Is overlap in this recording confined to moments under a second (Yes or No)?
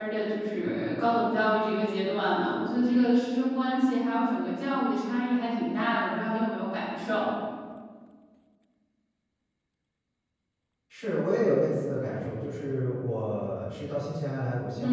Yes